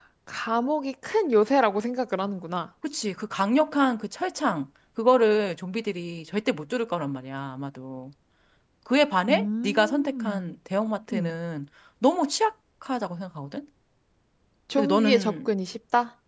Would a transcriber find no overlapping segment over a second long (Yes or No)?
No